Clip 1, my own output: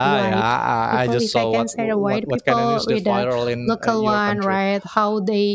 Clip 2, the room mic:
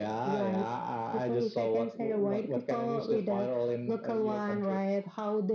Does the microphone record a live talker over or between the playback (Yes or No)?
No